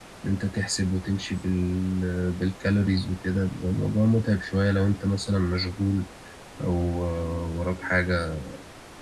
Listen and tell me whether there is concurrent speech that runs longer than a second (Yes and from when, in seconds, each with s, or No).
No